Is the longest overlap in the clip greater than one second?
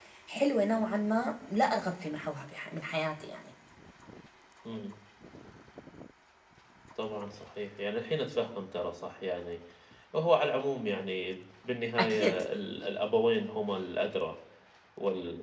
No

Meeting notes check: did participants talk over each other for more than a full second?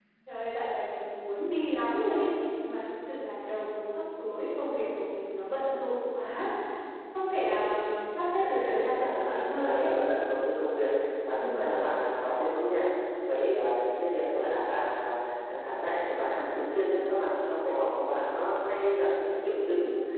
Yes, from 8.4 s

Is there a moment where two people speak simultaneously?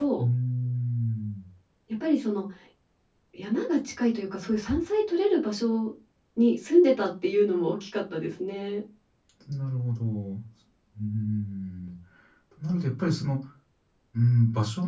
No

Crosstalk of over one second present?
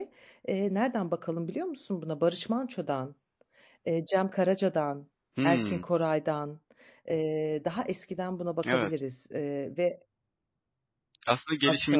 No

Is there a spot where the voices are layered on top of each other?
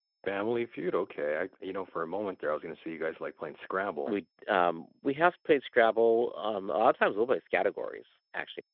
No

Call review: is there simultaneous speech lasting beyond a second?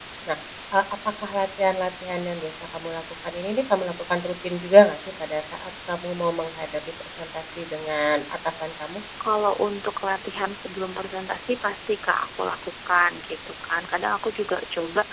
No

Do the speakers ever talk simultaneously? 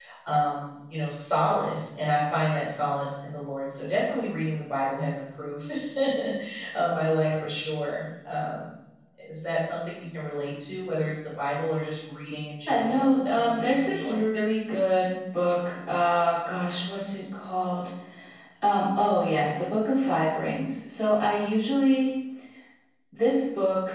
Yes, from 12.7 s

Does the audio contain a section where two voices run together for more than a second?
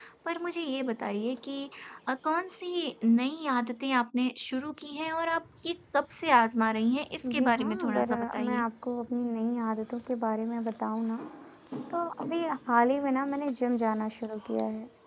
Yes, from 7.2 s

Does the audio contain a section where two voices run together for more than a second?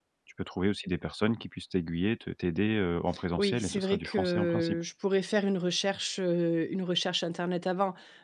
Yes, from 3.4 s

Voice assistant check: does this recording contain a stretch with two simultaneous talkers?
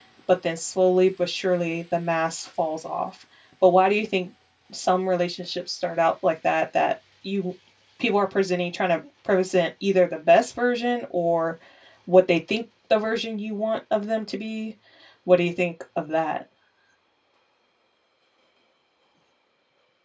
No

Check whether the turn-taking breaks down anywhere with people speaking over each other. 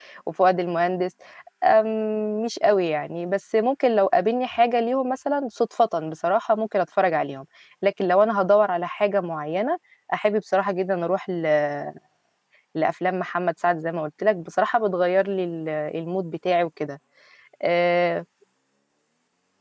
No

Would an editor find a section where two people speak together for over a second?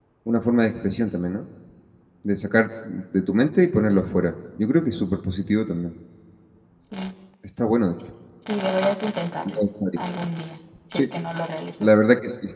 No

